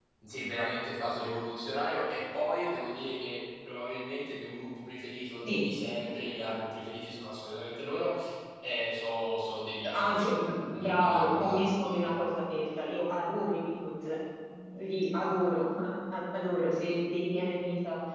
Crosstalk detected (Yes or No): Yes